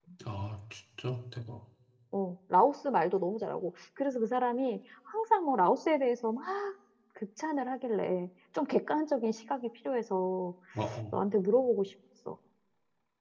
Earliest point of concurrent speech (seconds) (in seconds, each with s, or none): none